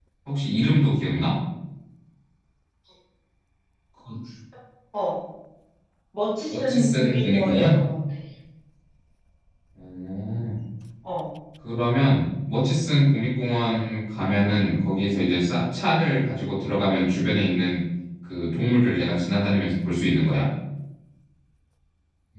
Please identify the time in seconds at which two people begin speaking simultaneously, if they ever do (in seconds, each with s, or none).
6.5 s